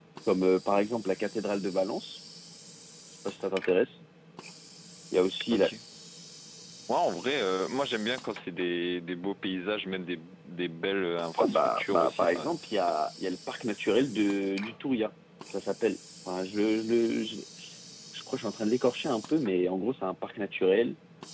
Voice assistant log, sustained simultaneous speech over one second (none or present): present